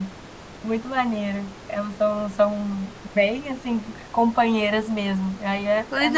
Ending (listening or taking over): taking over